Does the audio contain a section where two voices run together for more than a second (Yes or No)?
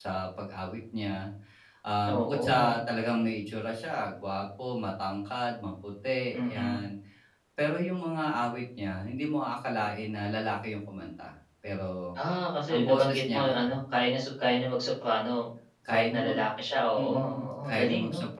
Yes